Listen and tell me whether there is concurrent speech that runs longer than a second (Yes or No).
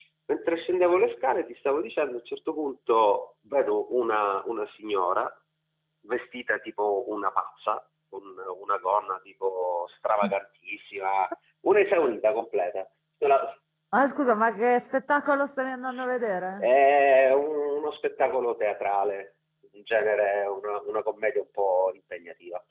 No